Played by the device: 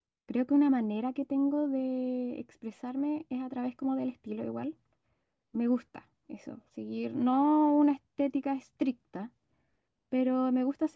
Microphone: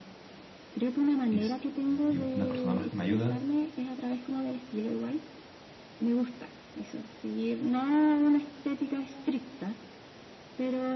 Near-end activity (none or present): present